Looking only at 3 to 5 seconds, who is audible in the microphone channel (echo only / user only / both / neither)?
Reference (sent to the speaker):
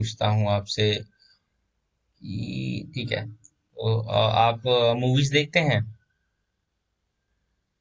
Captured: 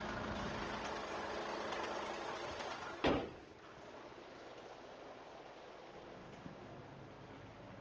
neither